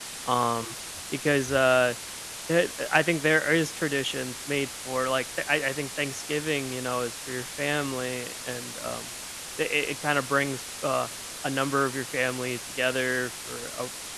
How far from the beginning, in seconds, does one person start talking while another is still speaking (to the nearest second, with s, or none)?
none